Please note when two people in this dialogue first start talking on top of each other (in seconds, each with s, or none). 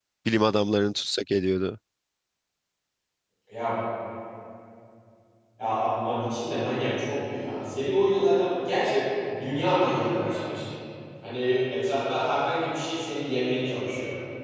none